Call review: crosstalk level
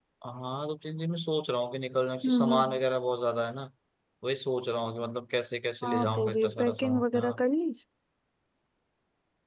present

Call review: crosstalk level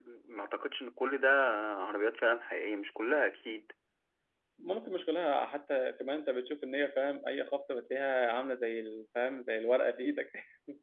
none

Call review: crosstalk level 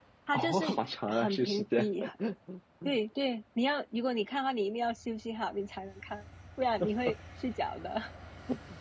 present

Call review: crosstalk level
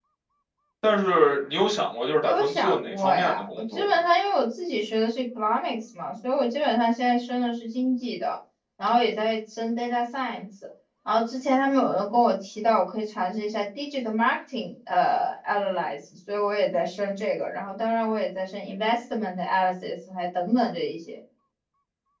present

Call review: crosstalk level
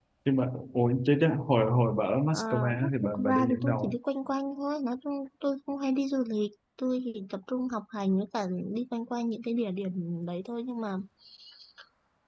present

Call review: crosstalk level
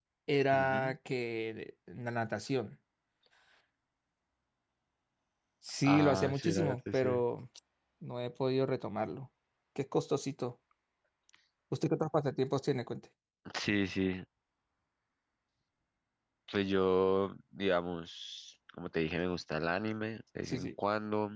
present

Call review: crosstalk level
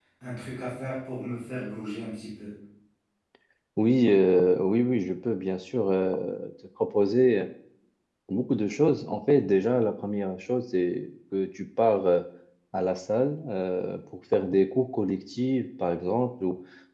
none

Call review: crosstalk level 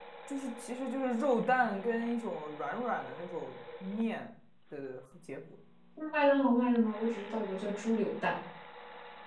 none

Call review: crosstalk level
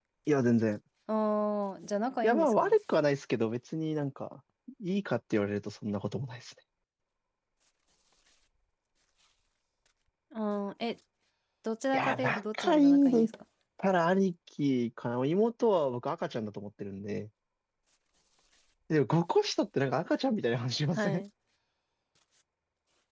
present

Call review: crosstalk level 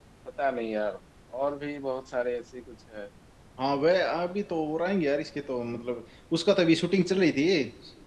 none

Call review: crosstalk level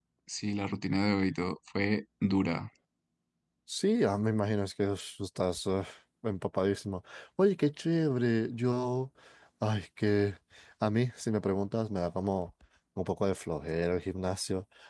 none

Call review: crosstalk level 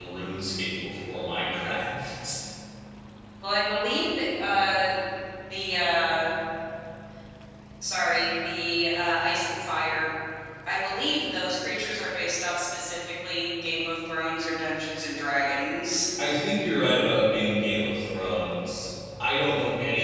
none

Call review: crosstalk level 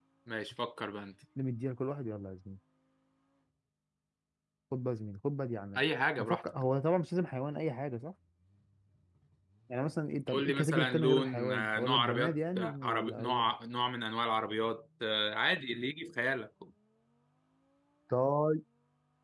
present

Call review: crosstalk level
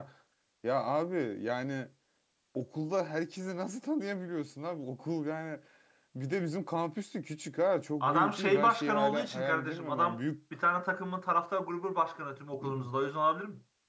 present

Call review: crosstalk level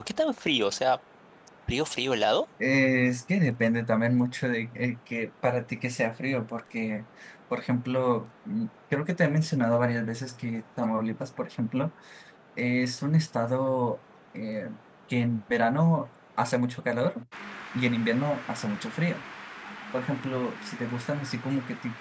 none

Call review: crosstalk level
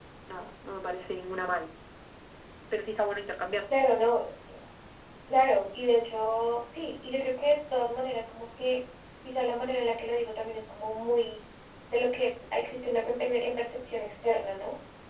none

